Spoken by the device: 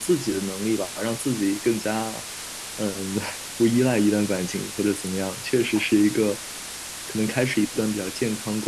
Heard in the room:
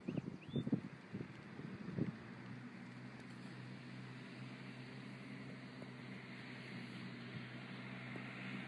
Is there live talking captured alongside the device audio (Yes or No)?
No